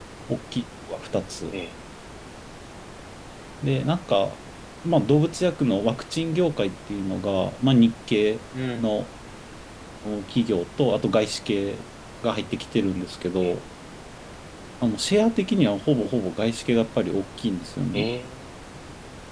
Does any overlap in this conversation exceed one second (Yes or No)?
No